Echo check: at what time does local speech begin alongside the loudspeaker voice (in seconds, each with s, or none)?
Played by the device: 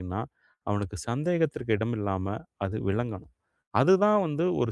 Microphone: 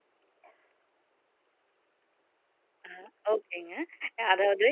2.9 s